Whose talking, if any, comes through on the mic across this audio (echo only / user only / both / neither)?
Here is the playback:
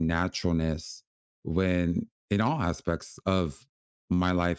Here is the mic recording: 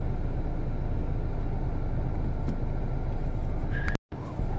neither